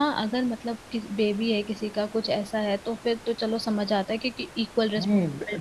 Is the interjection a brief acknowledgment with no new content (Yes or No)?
No